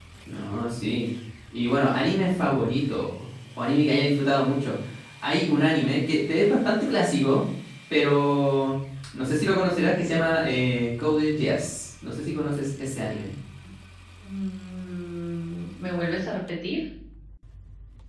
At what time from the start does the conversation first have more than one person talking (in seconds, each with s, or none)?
none